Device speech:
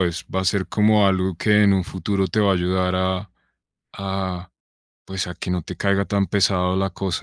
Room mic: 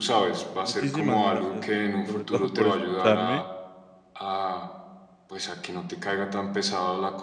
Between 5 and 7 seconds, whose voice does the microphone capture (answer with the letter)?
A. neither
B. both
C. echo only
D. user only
C